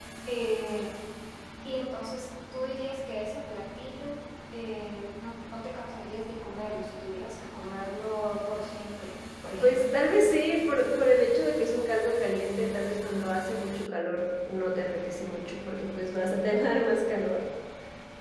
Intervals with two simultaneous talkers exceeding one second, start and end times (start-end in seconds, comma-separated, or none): none